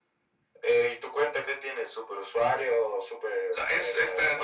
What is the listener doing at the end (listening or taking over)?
taking over